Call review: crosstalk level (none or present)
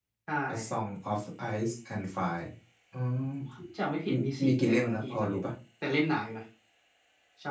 present